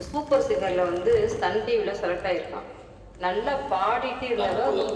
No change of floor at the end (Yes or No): Yes